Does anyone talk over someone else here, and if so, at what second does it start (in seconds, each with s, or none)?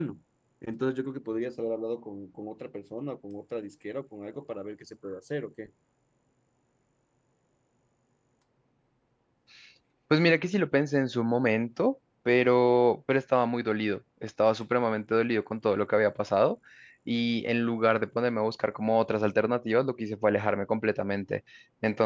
none